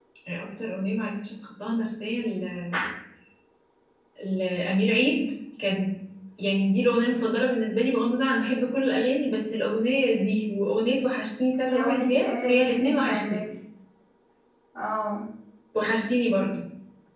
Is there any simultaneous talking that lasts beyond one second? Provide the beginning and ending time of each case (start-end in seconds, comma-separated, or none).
11.7-13.4